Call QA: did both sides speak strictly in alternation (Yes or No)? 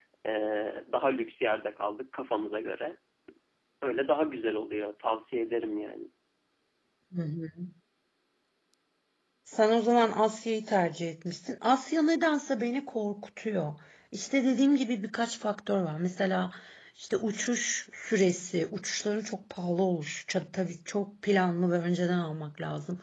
Yes